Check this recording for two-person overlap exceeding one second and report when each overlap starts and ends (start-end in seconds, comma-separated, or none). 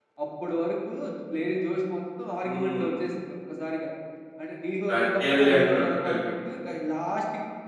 4.9-6.2